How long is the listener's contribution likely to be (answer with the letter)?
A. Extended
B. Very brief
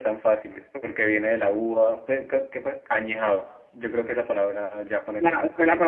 A